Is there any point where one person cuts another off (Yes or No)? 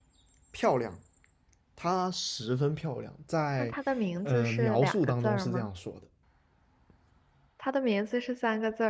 Yes